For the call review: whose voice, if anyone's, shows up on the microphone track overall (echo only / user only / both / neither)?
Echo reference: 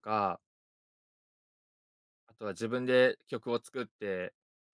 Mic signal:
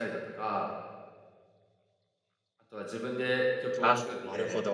both